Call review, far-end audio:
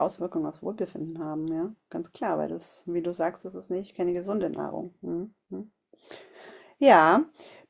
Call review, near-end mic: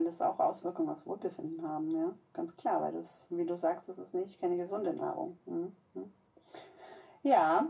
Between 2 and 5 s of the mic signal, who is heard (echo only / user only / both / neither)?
echo only